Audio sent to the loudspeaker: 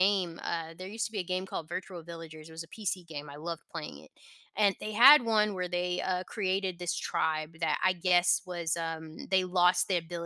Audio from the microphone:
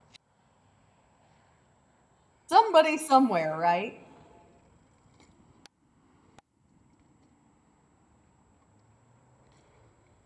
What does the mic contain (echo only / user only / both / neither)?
user only